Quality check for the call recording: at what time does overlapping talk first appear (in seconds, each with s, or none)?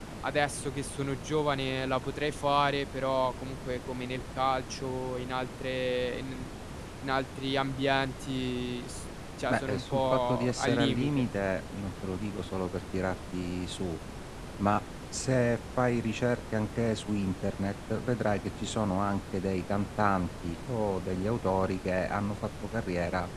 9.5 s